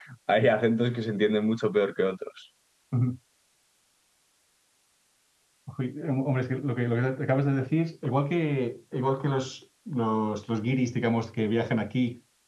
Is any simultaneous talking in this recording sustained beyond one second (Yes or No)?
No